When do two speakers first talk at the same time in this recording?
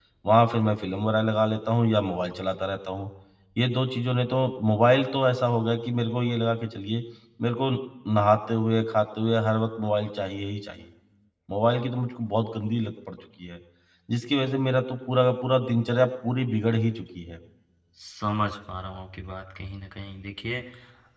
none

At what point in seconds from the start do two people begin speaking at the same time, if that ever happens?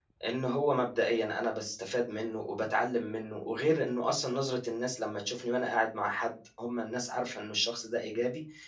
none

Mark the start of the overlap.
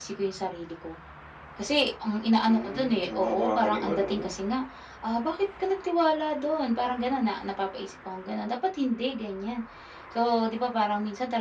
2.5 s

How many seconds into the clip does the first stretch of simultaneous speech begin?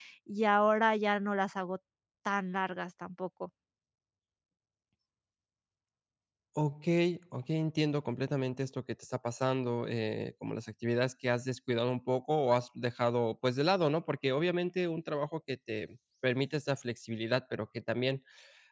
none

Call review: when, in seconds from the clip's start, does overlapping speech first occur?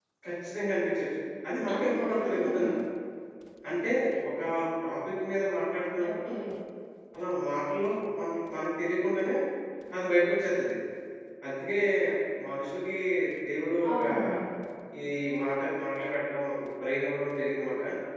1.5 s

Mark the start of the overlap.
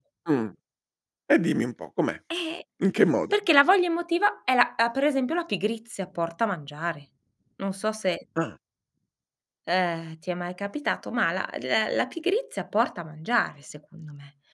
none

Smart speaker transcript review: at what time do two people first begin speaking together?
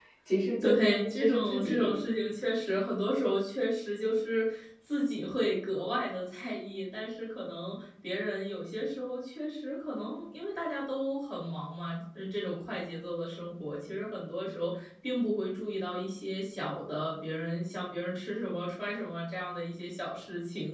0.6 s

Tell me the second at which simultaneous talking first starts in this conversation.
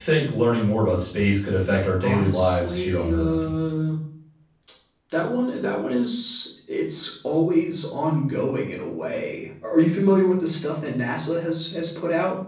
2.0 s

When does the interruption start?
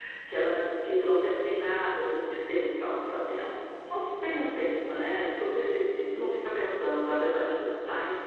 none

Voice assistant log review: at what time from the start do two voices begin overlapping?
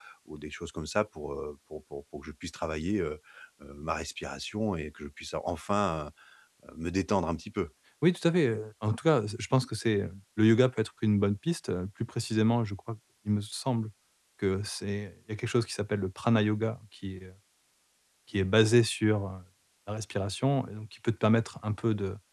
none

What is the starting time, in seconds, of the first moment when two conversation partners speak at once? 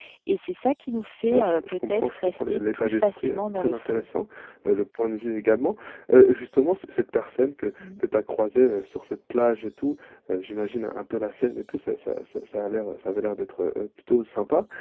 1.3 s

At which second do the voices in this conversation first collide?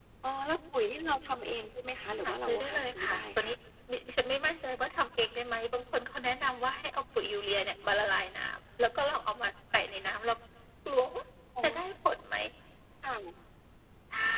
2.2 s

